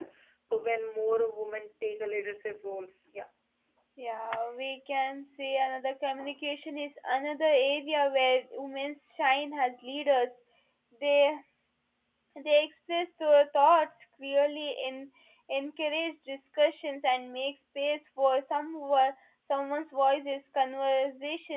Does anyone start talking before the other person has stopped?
No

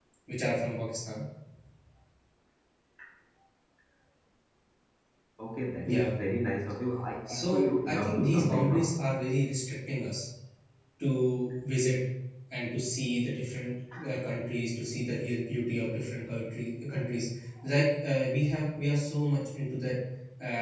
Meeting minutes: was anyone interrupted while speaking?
Yes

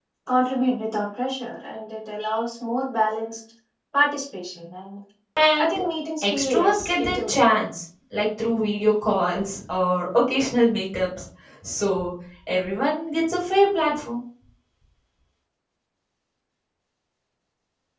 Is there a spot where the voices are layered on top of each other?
Yes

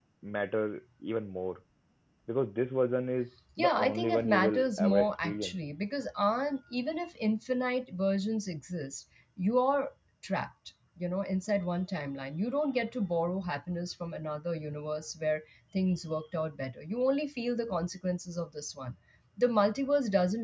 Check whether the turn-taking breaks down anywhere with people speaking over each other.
Yes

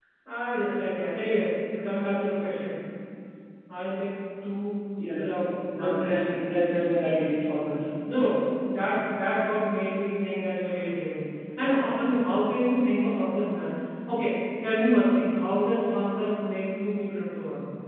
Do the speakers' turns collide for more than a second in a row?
No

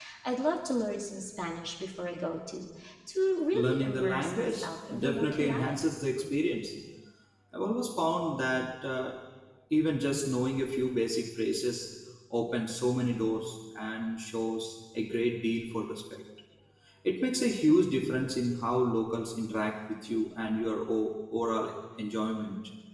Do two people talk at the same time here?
Yes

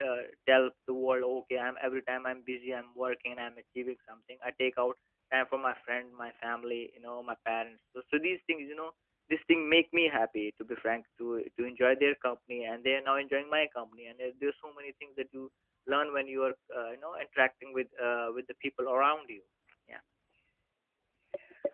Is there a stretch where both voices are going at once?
No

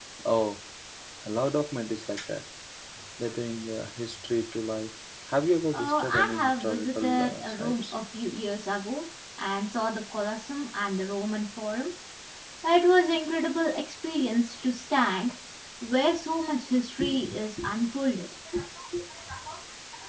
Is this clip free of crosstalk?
No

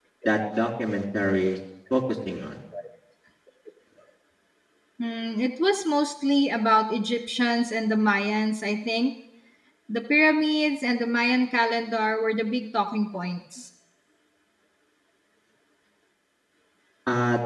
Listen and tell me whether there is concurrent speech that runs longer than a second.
No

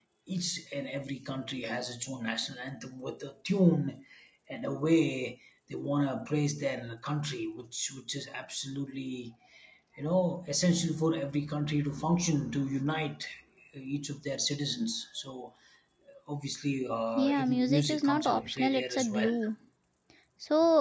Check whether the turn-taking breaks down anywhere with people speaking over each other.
Yes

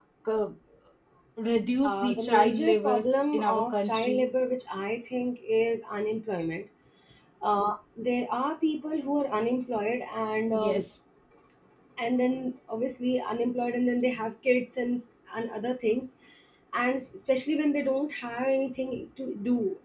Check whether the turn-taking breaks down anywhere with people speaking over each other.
Yes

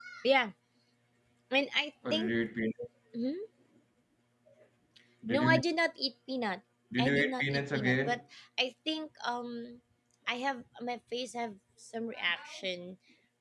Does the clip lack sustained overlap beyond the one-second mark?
No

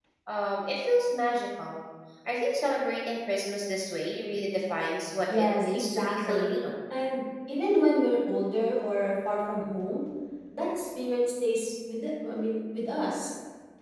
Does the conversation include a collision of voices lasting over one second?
Yes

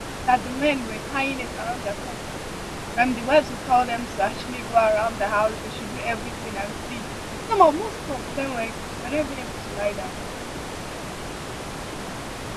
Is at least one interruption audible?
No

